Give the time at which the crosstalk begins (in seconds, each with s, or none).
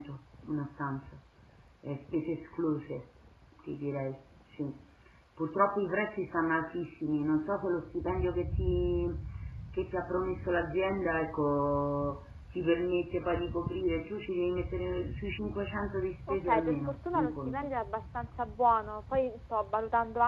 16.3 s